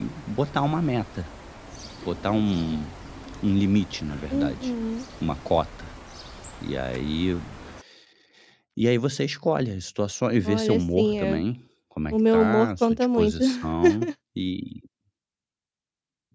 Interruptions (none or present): present